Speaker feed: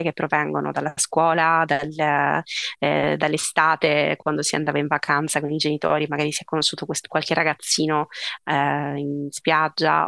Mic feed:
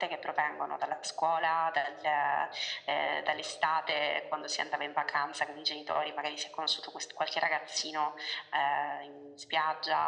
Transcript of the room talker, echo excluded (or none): none